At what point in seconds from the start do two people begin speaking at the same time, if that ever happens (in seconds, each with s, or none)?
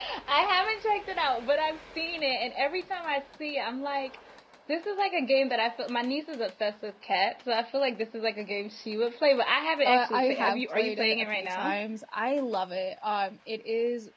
9.8 s